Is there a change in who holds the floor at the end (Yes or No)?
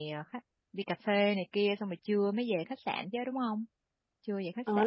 Yes